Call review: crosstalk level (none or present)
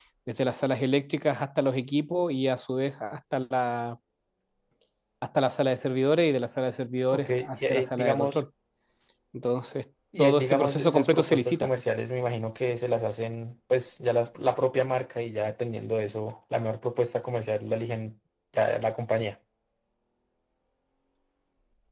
present